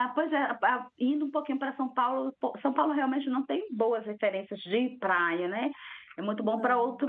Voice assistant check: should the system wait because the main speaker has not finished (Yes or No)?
Yes